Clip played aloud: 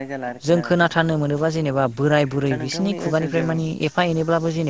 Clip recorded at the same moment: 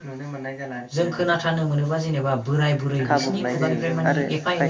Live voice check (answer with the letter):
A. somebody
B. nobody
A